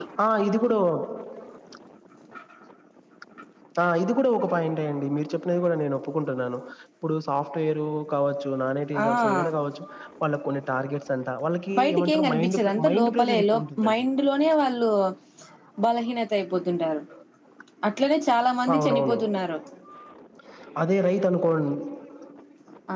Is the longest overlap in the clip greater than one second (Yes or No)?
Yes